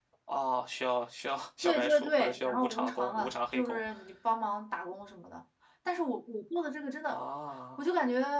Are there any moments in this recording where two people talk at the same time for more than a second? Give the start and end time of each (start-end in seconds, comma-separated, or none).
1.6-3.8